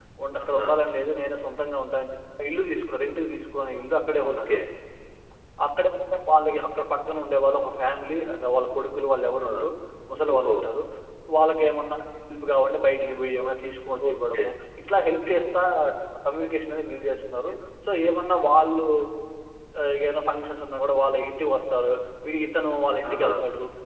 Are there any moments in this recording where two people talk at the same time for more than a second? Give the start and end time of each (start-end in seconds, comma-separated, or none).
none